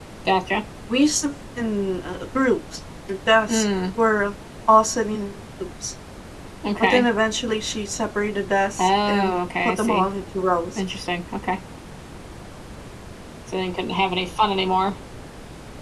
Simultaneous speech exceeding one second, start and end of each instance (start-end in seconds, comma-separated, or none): 8.8-10.1